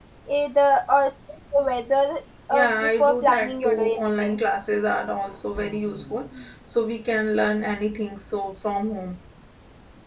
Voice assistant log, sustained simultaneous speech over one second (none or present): present